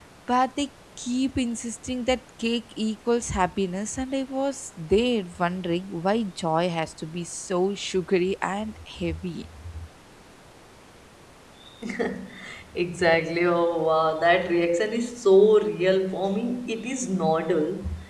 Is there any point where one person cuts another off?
No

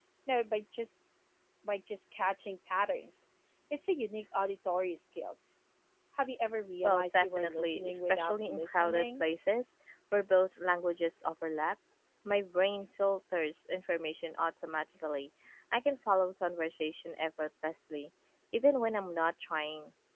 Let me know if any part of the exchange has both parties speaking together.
Yes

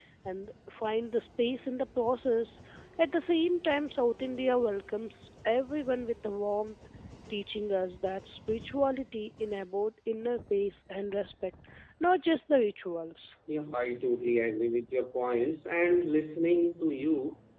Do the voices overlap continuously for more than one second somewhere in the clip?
No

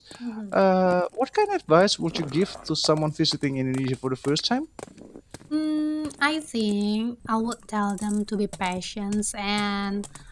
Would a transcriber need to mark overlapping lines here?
No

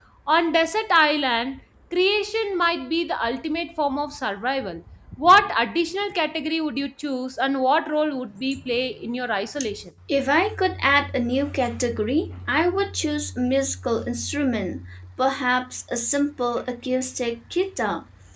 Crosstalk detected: No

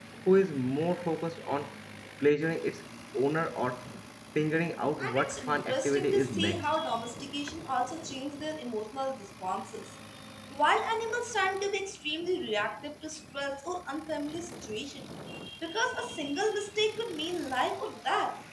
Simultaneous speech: Yes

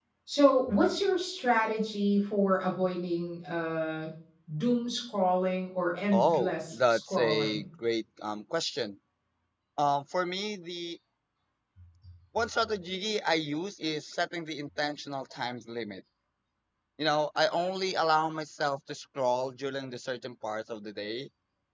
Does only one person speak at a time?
No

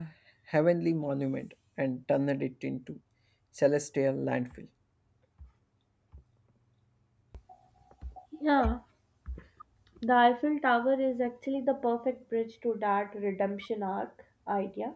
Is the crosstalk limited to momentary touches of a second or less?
Yes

